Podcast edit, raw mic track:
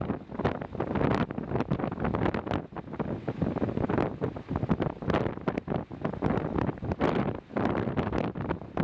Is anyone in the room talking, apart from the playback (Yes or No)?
No